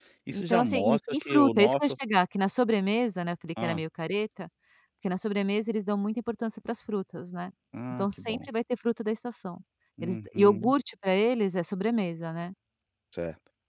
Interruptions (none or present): present